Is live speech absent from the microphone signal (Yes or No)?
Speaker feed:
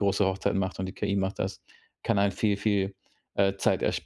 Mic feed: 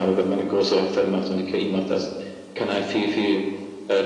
Yes